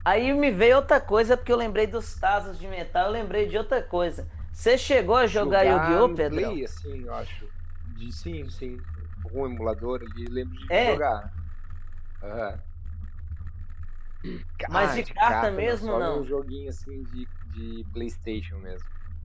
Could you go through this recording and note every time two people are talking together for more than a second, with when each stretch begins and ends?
5.2-6.5, 14.7-16.2

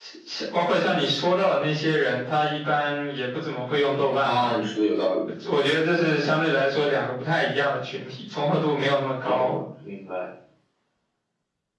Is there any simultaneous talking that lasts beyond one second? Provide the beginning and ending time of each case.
none

